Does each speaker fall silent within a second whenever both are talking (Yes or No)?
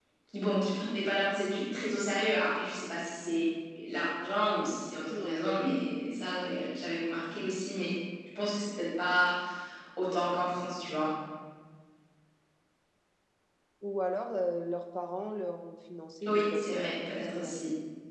No